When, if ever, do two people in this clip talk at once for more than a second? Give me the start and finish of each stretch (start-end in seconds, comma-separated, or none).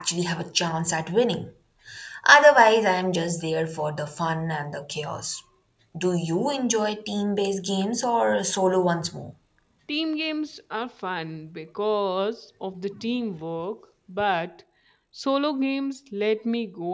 none